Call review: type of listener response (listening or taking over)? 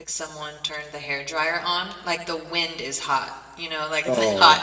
listening